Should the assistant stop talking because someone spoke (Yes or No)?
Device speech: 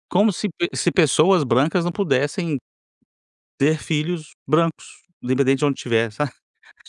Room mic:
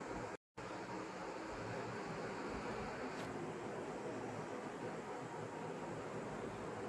No